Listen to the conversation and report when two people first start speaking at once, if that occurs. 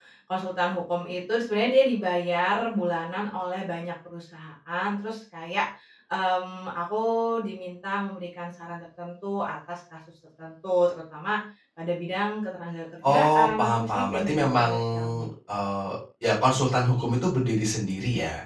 13.0 s

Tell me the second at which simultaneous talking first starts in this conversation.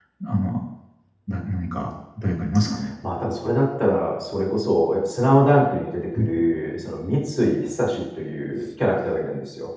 none

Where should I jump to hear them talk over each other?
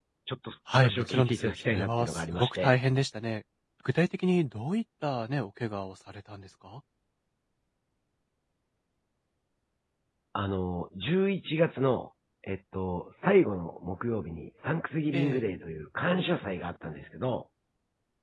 0.7 s

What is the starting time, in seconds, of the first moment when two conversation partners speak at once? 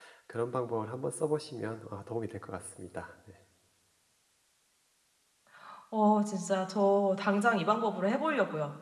none

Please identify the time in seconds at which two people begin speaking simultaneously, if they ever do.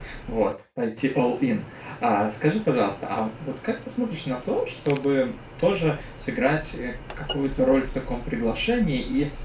none

